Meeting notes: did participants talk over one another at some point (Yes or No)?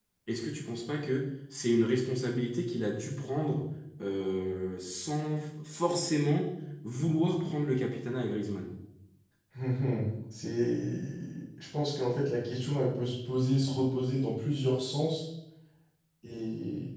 No